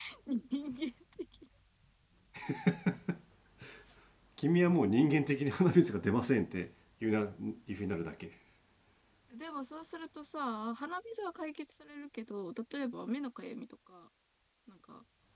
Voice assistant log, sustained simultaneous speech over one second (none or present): none